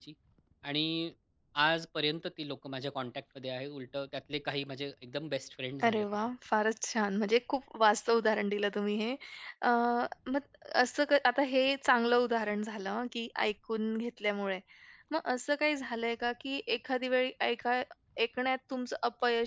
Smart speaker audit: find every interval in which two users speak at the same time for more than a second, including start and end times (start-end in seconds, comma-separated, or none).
none